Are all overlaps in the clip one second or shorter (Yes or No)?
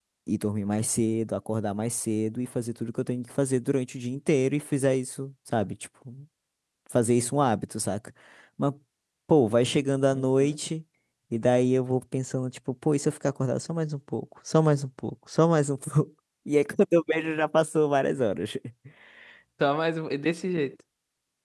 Yes